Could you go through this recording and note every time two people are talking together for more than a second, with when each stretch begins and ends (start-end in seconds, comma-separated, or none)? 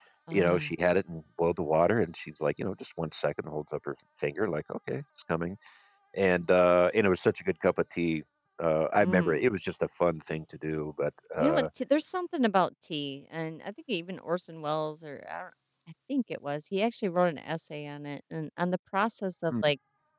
none